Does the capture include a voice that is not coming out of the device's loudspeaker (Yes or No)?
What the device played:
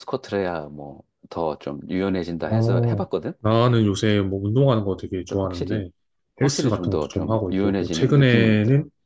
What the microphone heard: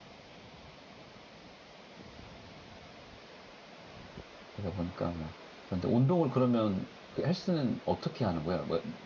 Yes